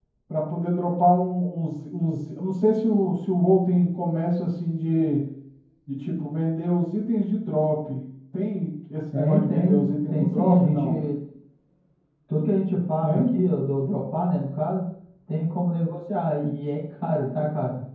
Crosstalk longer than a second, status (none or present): present